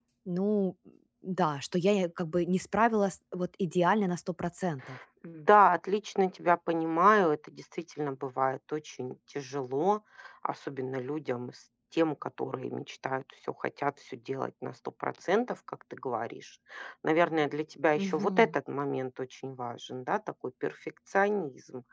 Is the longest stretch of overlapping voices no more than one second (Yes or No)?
Yes